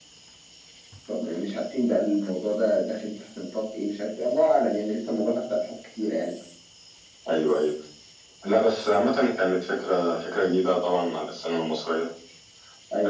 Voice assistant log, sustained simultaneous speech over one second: none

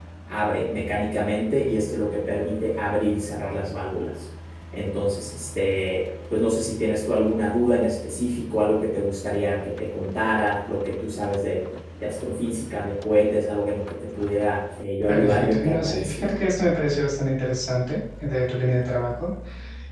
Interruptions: present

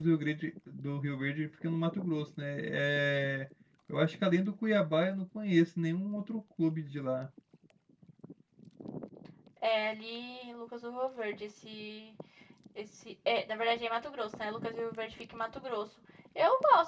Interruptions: none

